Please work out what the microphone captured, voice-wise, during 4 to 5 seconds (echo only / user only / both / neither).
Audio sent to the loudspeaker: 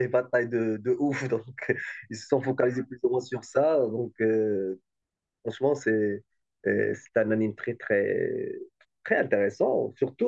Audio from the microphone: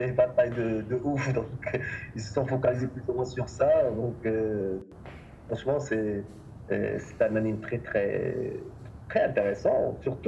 echo only